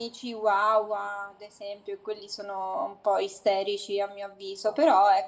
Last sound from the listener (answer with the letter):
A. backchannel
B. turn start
A